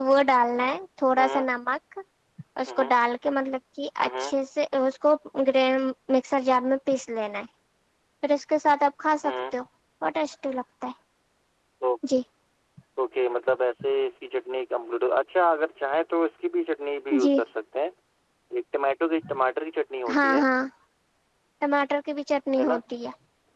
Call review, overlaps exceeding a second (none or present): none